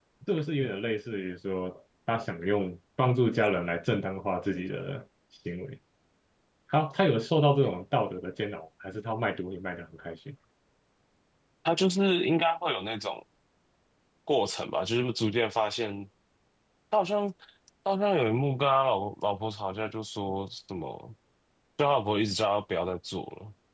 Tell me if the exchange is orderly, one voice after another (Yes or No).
Yes